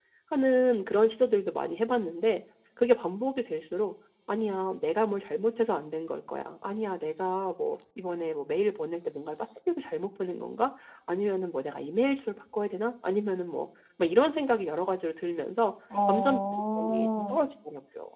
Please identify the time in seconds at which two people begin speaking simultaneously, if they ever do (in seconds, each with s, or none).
15.9 s